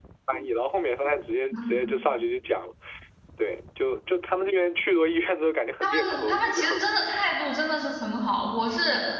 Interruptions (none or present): present